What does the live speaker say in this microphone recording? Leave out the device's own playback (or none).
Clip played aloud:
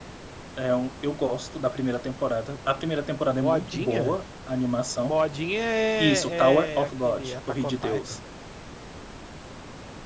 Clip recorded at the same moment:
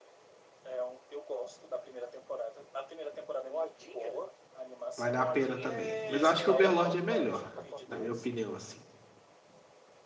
Vale a pena também. Mas eu acho que o Overlord é melhor, na minha opinião, assim.